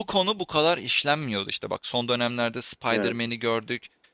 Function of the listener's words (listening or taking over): listening